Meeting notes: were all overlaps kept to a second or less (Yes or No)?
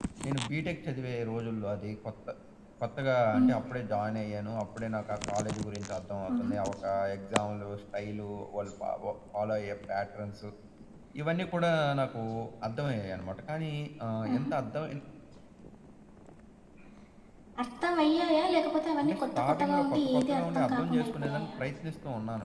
No